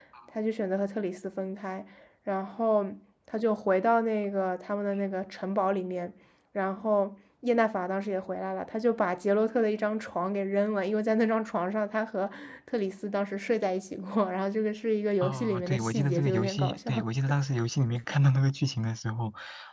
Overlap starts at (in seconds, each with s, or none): 15.2 s